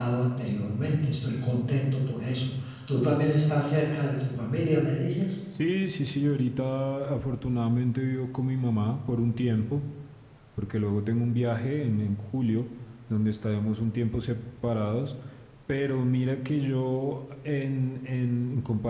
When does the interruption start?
none

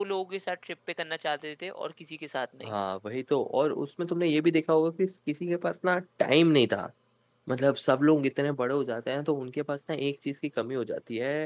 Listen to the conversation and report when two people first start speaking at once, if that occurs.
none

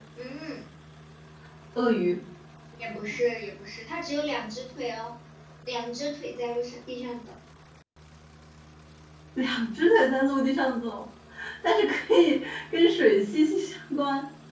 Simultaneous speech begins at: none

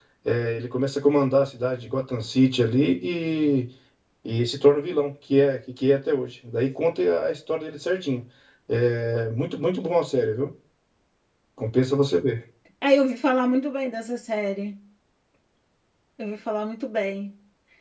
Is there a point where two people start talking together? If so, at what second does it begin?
none

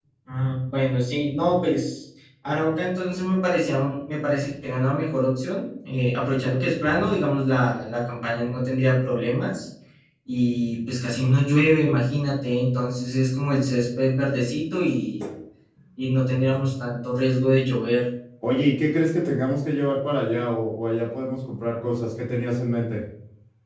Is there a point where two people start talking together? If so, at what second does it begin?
none

